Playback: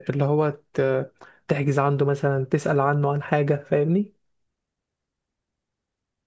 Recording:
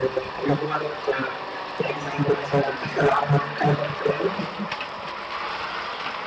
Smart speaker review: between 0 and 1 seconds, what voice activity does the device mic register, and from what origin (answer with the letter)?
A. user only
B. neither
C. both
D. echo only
D